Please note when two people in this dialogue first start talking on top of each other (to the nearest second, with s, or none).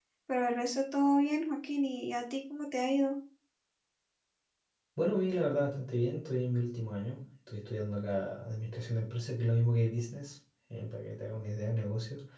none